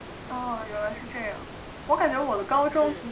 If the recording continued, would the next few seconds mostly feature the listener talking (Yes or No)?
No